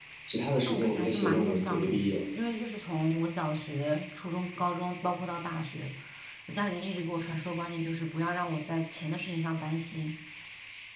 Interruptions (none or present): present